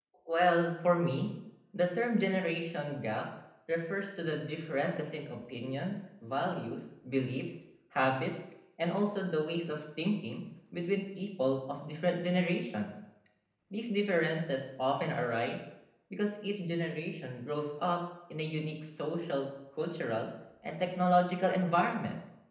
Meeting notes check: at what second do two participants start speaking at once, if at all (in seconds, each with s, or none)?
none